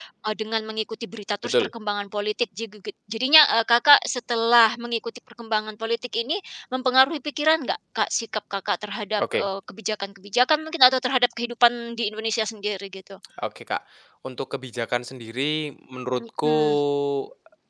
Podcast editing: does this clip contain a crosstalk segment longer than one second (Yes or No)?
No